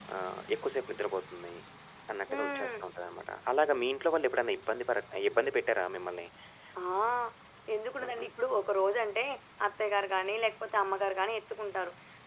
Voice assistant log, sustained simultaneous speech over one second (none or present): none